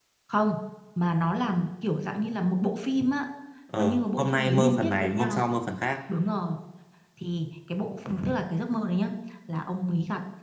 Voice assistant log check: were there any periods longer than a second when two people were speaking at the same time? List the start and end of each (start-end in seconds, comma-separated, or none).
3.8-5.4